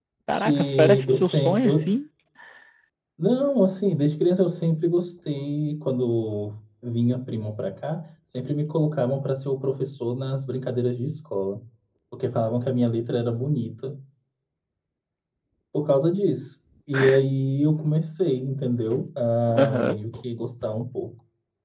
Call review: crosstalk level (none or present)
present